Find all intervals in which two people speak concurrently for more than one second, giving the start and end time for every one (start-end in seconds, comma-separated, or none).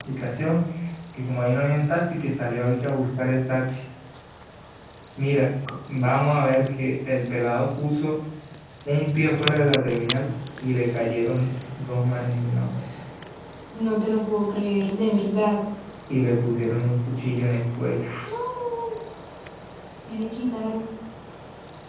none